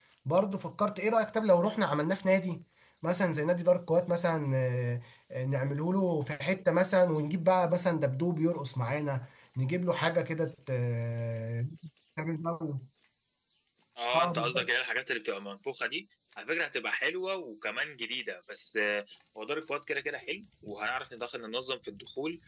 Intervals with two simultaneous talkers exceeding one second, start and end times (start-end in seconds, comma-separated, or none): none